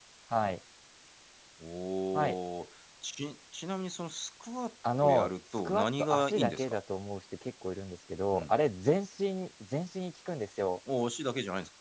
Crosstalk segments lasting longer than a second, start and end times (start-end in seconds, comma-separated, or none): 5.0-6.8